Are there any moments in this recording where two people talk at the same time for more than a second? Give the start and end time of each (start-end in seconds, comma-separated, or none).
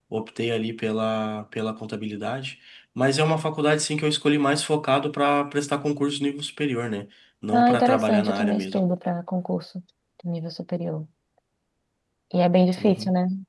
7.5-8.8